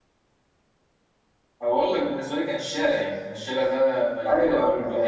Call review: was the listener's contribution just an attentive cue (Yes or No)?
No